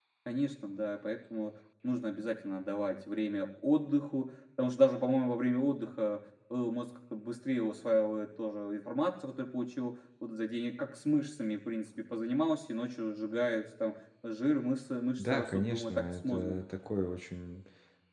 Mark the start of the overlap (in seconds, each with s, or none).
15.2 s